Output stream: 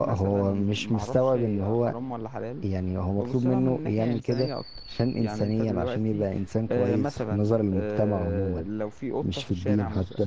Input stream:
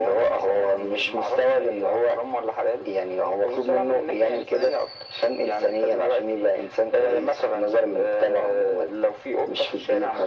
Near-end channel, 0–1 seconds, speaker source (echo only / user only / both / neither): echo only